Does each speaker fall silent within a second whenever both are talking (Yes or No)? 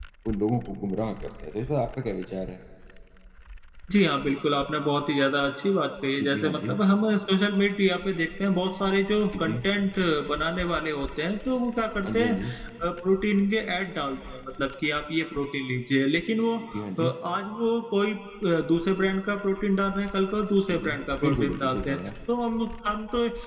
No